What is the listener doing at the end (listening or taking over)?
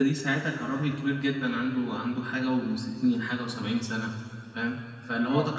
listening